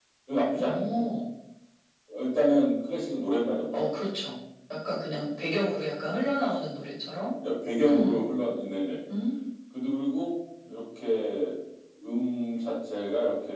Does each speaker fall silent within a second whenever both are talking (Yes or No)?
Yes